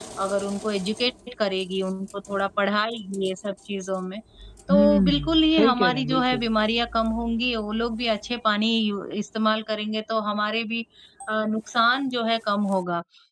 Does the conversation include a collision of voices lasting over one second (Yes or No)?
Yes